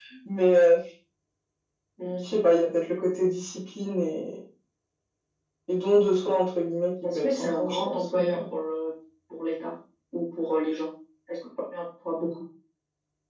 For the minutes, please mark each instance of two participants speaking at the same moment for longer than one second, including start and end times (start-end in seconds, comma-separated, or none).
7.1-8.4